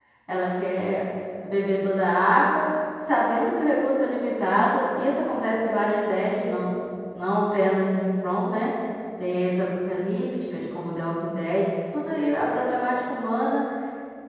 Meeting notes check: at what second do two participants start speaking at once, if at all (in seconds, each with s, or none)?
none